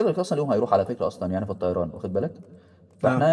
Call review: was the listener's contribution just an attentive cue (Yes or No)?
Yes